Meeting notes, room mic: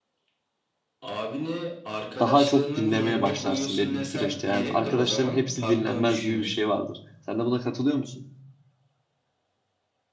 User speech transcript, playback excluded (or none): daha çok dinlemeye başlarsın belli bir süreçte. Yani arkadaşların hepsi dinlenmez gibi bir şey vardır. Sen de buna katılıyor musun?